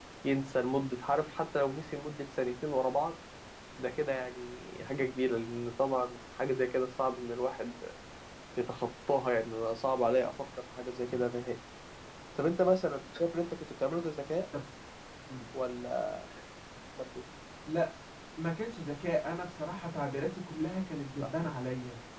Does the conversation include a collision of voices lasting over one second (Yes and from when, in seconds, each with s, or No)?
No